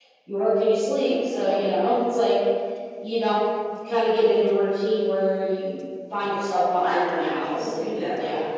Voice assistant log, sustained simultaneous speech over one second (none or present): present